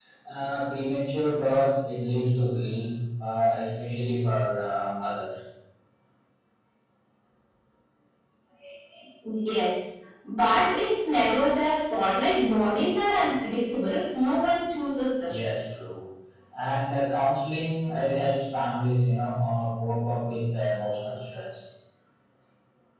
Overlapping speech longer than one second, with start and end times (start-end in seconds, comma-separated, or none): none